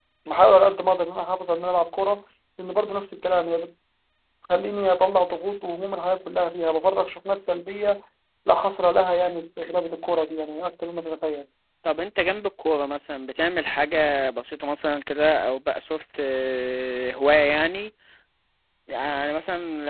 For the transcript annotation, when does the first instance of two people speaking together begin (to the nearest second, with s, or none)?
none